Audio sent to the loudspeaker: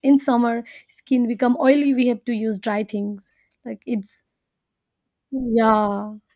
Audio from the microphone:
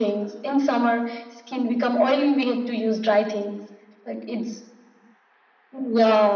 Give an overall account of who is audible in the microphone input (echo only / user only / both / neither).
echo only